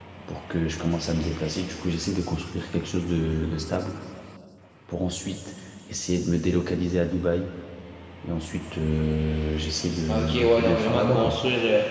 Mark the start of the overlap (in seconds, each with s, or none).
10.1 s